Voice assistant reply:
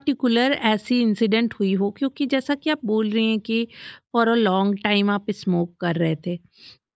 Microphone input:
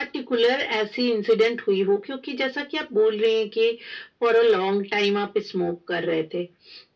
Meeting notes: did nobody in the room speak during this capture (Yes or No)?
Yes